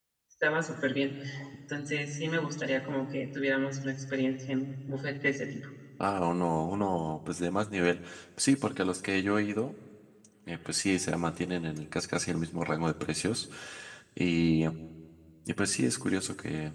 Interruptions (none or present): none